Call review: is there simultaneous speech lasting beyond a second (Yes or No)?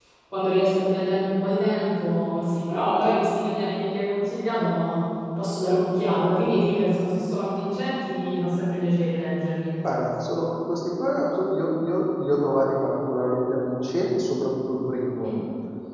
No